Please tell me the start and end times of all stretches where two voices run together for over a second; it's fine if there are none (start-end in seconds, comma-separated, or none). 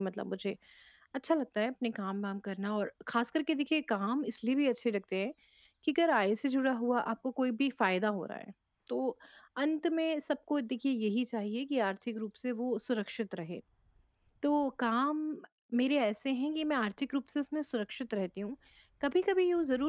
none